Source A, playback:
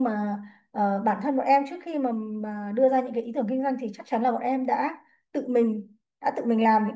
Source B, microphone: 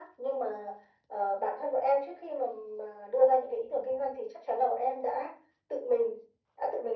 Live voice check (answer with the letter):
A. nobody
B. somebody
A